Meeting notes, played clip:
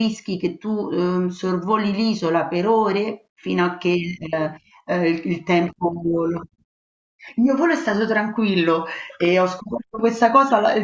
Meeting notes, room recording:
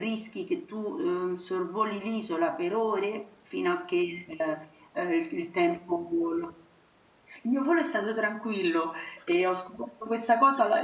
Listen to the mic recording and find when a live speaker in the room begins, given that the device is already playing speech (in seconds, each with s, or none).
none